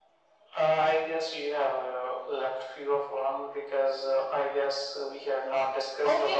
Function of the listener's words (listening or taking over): taking over